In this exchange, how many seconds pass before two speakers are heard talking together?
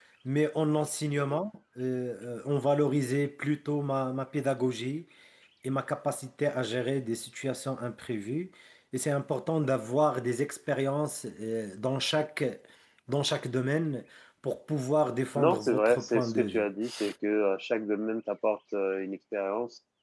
15.4 s

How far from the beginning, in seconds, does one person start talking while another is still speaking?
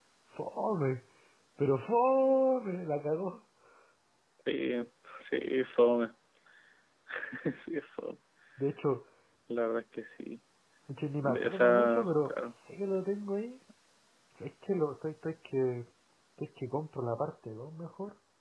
11.2 s

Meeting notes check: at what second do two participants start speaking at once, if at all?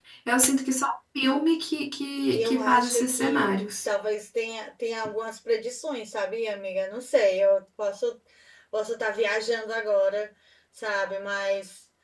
2.3 s

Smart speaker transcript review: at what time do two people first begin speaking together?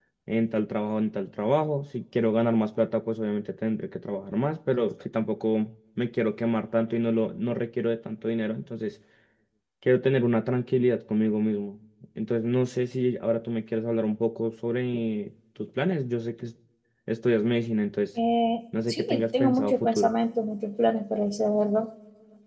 18.9 s

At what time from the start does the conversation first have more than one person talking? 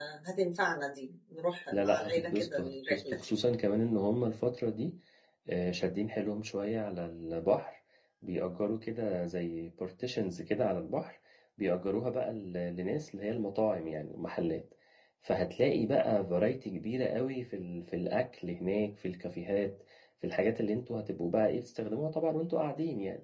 1.7 s

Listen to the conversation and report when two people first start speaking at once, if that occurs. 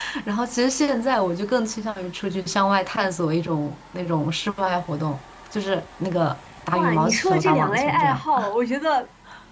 6.7 s

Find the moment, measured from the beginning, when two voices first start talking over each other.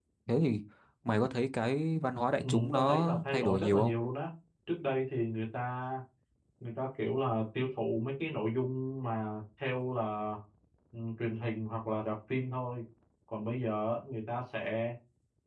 2.4 s

